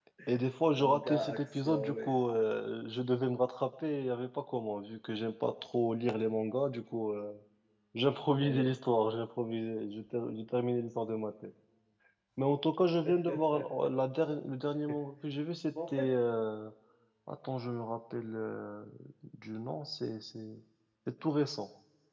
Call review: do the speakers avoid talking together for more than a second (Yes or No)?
No